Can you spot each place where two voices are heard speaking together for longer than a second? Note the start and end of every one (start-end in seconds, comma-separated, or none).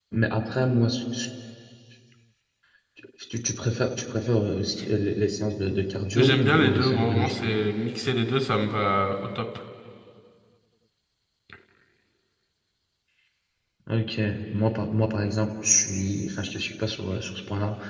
6.2-7.5